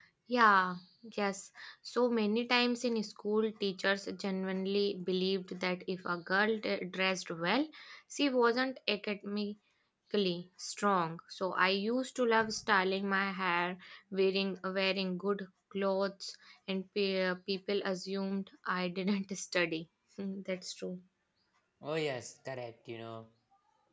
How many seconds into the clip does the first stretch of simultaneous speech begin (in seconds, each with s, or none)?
none